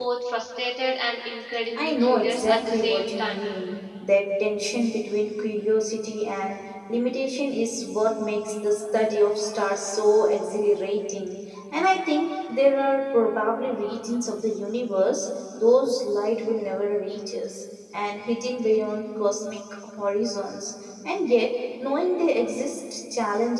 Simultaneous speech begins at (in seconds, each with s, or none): 1.8 s